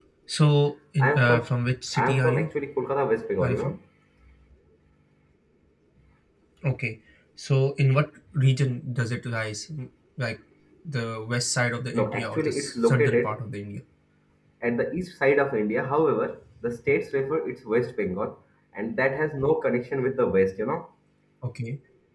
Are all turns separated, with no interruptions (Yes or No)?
No